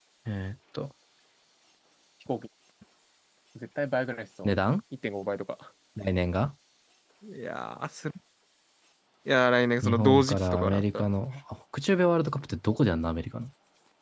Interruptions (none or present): present